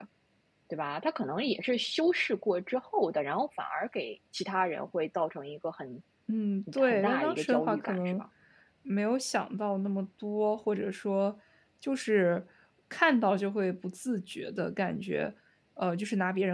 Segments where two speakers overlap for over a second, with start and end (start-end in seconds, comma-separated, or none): 6.8-8.2